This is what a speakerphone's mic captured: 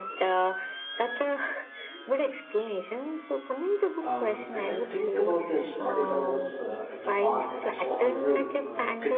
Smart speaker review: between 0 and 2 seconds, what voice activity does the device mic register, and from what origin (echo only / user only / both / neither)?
echo only